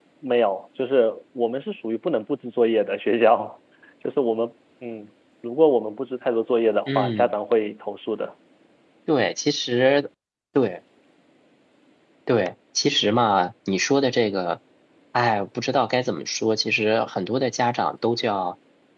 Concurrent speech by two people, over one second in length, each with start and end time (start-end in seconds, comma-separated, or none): none